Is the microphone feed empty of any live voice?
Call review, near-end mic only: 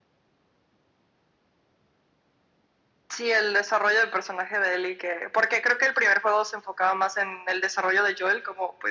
Yes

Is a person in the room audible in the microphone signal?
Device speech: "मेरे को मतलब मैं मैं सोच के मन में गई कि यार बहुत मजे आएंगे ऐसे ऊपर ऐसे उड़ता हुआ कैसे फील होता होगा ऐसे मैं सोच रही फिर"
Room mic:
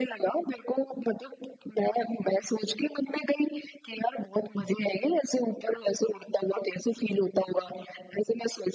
No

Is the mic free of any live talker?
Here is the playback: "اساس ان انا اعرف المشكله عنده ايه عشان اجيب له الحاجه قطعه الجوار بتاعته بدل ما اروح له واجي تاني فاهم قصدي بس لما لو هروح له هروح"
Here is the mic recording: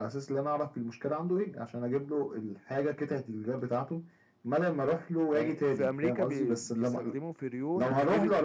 No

